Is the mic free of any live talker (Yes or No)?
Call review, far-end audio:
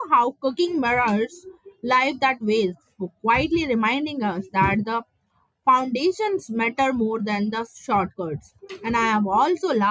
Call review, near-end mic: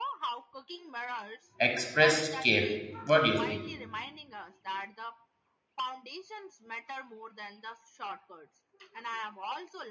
No